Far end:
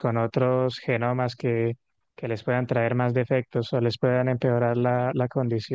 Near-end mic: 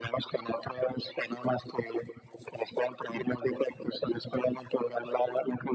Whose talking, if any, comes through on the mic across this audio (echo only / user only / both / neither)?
echo only